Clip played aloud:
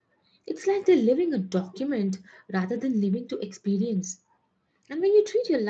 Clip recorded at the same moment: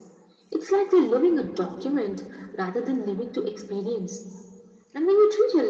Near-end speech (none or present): none